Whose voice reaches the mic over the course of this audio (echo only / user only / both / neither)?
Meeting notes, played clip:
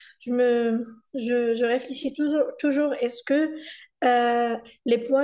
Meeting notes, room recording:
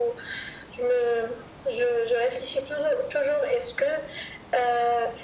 echo only